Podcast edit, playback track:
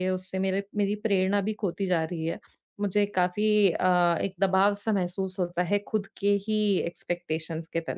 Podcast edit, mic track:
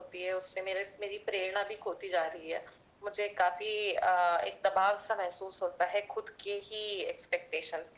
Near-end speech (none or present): none